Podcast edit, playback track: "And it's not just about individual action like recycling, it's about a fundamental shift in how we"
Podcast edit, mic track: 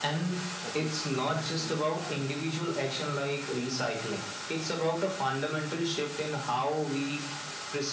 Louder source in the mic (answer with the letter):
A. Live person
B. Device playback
B